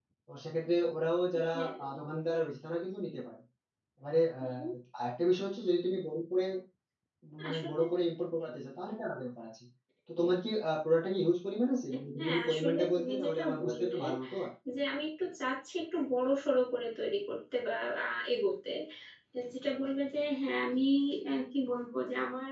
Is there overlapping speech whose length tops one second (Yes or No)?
Yes